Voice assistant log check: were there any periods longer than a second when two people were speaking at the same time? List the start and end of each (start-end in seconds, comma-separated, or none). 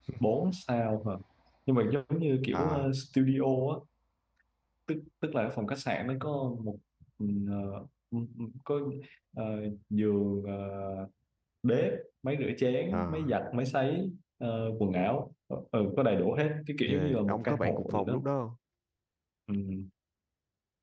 16.8-18.2